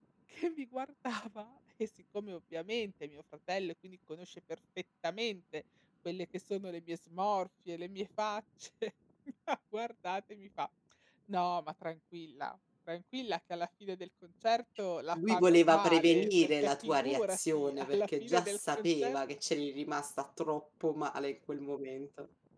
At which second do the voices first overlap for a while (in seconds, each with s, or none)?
15.1 s